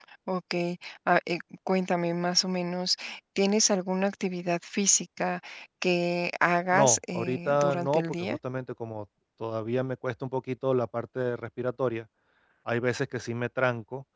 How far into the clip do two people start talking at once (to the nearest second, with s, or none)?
7 s